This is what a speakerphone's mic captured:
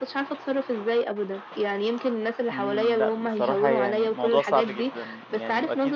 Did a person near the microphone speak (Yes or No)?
Yes